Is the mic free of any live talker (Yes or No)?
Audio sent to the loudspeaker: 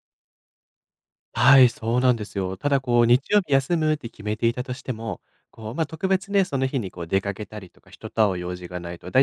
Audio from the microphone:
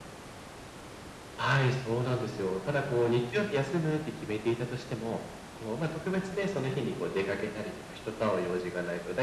Yes